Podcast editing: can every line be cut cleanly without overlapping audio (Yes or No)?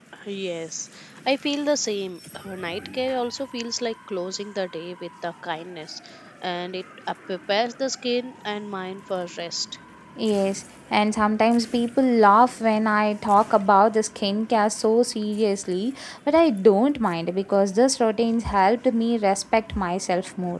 Yes